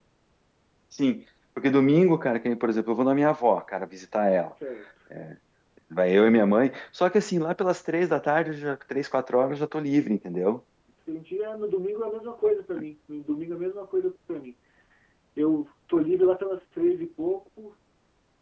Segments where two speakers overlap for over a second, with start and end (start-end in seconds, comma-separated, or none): none